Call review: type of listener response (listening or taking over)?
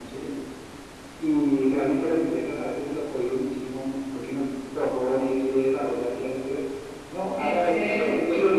listening